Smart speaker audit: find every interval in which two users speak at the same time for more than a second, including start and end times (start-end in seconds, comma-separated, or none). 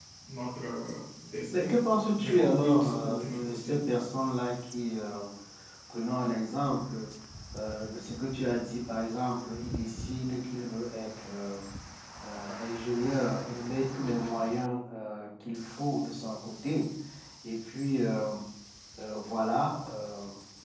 2.2-3.8